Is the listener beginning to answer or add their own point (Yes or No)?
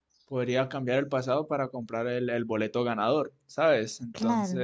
No